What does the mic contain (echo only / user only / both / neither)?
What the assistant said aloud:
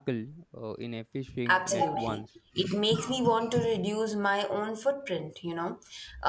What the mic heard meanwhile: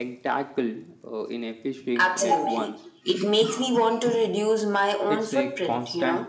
both